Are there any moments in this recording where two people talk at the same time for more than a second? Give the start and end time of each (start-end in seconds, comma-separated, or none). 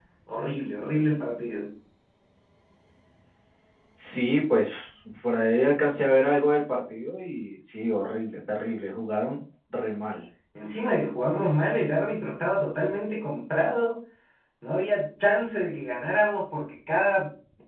none